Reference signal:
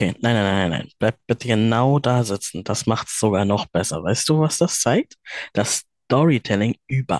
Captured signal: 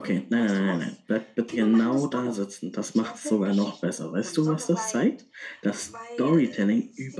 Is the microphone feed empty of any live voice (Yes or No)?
No